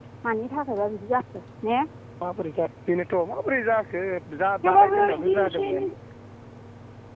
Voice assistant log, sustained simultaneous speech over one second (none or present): present